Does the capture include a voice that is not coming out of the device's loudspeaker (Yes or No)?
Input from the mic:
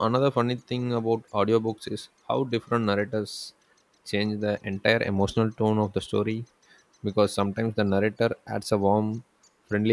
Yes